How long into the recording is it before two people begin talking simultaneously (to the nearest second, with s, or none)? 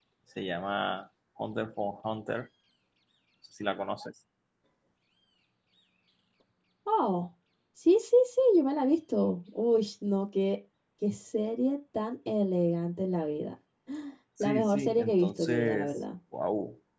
14 s